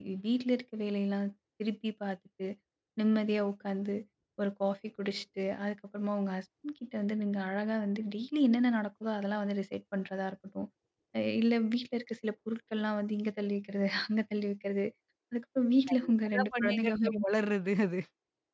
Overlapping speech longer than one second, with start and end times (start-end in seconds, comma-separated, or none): 15.9-17.2